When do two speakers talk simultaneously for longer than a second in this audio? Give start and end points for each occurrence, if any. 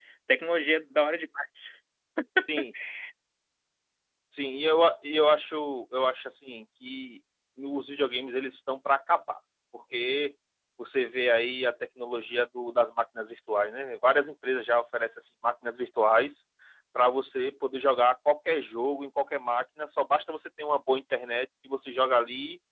none

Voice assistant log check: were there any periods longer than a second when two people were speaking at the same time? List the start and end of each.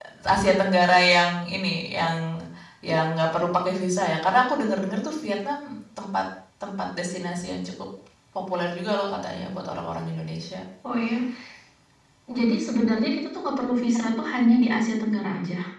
none

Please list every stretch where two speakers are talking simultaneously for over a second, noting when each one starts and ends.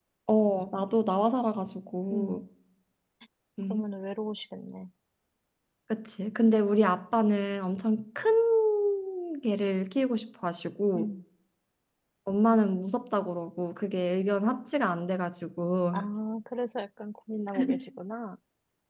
none

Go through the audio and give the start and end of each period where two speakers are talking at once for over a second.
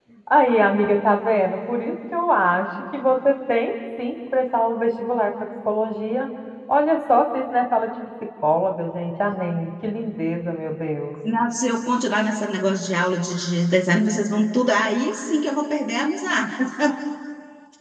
none

